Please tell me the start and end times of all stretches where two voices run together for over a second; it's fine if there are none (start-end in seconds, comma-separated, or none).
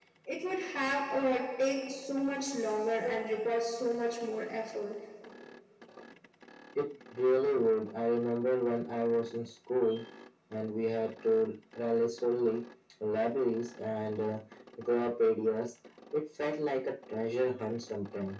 none